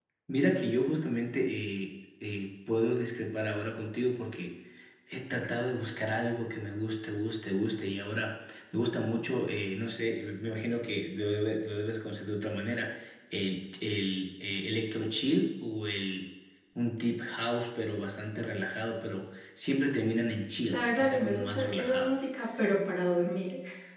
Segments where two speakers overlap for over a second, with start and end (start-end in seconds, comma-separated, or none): 20.7-22.1